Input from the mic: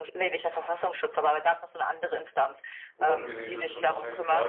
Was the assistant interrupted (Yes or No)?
Yes